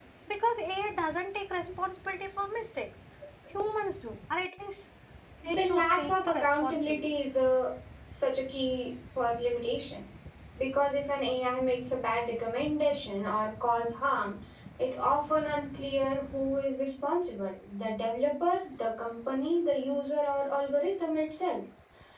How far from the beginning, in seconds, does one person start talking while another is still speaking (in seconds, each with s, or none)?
5.5 s